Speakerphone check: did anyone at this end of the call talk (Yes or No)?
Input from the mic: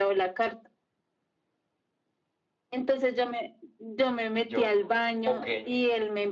Yes